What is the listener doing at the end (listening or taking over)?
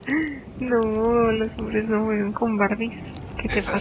taking over